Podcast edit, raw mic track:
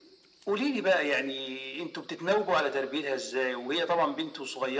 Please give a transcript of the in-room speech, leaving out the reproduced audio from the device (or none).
none